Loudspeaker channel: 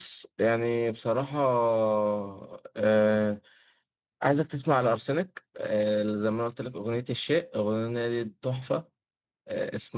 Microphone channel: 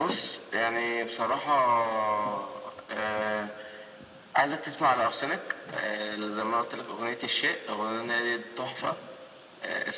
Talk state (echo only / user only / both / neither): echo only